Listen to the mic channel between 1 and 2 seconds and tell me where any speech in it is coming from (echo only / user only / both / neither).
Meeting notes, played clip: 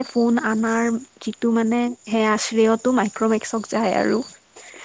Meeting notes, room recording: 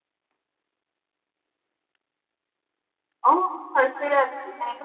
neither